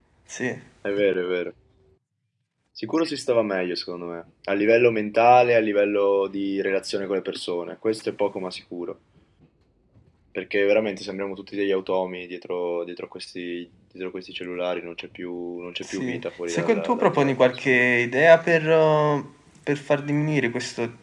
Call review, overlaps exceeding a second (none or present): present